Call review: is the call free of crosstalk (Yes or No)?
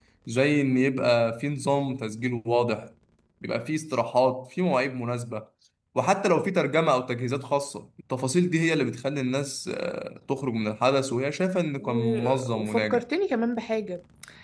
No